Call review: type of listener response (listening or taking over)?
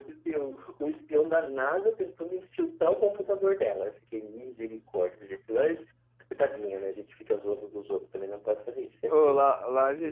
taking over